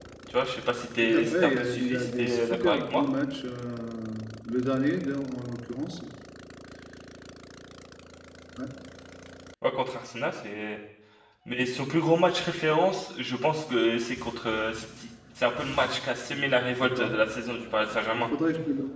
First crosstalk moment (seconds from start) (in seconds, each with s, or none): 1.0 s